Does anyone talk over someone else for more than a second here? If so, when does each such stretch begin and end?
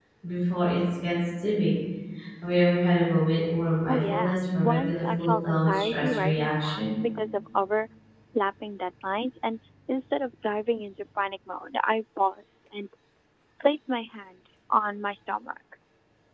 3.9-6.9

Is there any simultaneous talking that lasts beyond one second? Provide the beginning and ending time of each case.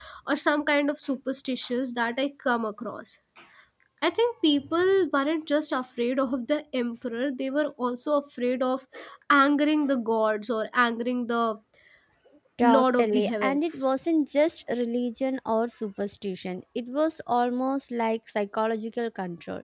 12.6-13.9

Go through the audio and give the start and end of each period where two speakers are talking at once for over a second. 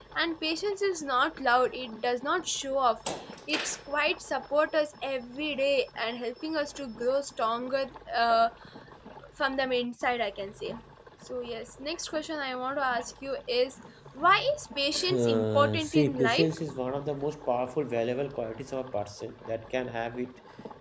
15.1-16.5

